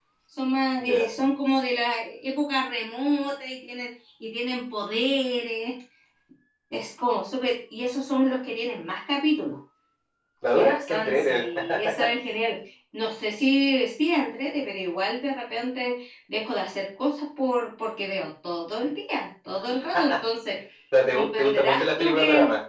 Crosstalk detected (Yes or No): Yes